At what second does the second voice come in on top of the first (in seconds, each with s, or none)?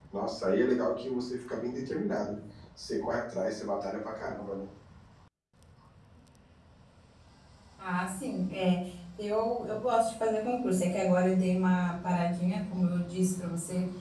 none